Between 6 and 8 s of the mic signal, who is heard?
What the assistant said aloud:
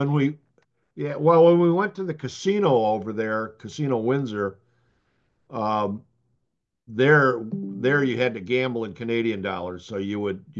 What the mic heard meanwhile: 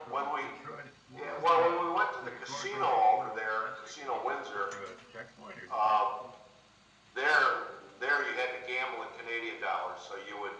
both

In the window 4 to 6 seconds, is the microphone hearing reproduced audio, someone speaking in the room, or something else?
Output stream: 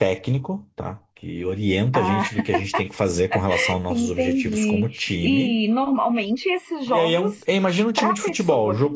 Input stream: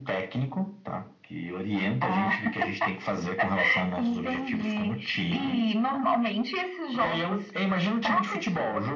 echo only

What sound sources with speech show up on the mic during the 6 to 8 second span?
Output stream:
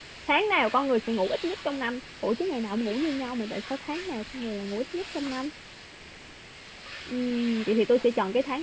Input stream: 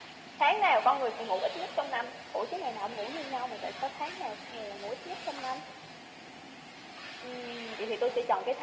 echo only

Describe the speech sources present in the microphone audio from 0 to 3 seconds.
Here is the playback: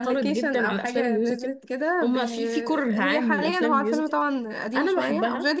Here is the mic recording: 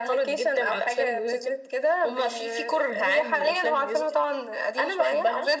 echo only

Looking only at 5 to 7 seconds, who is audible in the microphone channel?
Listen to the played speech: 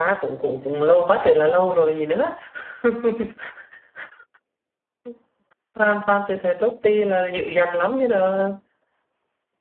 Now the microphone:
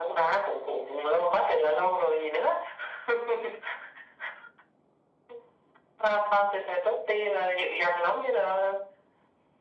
echo only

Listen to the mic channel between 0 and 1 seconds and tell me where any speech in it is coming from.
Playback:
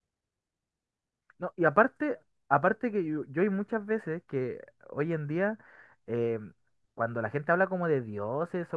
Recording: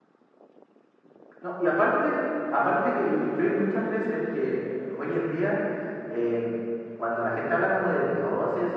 neither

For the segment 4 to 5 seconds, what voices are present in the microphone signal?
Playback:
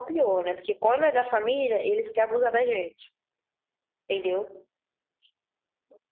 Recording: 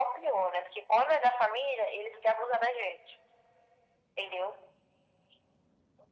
echo only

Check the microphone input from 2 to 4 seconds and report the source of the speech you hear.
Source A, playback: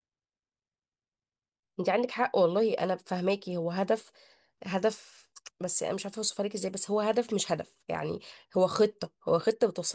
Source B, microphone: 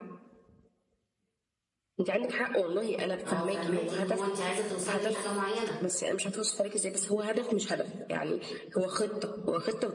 both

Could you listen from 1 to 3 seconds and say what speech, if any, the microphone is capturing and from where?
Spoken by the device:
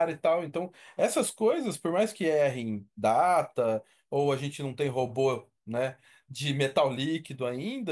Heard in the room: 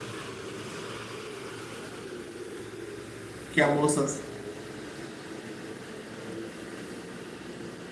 neither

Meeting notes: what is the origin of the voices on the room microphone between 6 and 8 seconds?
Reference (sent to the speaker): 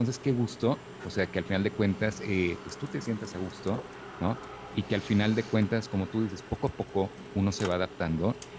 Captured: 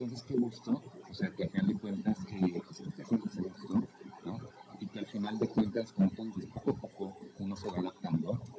echo only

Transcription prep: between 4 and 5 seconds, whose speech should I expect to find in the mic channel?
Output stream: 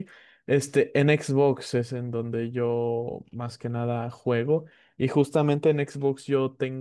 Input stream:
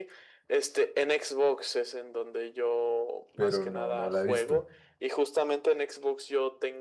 both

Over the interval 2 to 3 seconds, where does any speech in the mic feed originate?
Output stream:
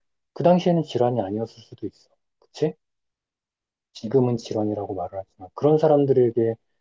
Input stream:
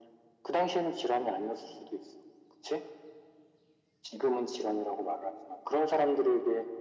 echo only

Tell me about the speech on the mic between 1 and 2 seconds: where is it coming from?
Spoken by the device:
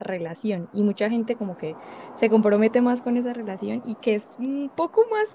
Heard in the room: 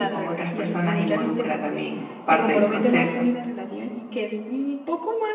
both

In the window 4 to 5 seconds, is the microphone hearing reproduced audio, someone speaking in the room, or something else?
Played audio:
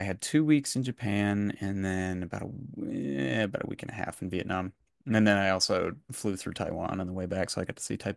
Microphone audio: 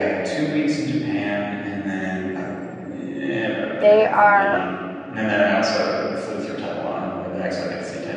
both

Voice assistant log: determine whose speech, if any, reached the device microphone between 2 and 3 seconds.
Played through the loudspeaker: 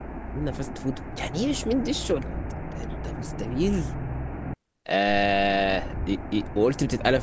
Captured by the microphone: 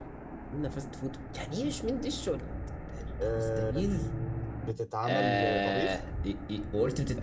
echo only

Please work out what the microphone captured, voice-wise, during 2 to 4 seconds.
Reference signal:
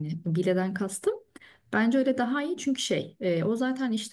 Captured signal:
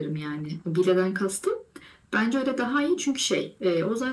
echo only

